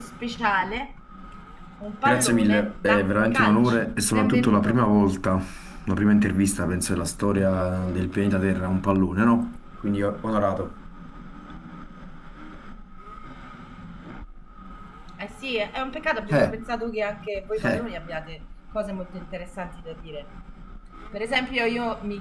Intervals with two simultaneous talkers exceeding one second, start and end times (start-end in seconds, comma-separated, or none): 2.0-4.8